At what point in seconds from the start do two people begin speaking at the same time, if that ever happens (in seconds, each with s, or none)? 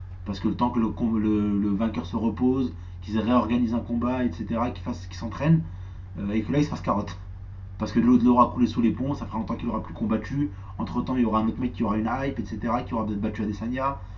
none